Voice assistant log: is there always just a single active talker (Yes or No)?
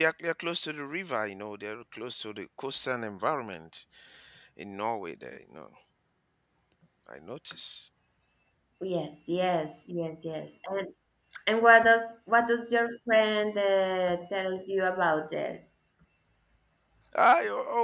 Yes